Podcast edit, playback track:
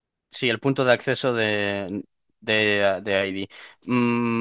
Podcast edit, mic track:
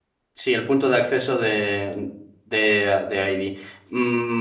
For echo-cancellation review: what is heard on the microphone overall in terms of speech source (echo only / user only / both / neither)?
echo only